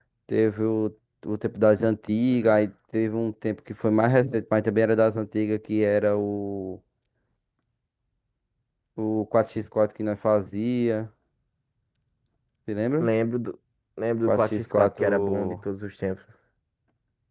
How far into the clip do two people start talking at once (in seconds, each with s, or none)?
14.3 s